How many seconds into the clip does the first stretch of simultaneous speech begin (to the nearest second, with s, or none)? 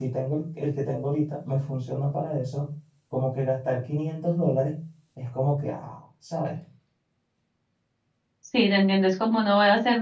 none